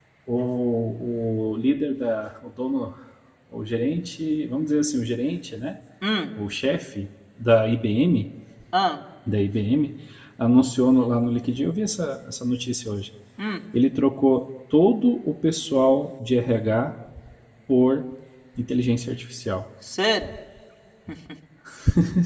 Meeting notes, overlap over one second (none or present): none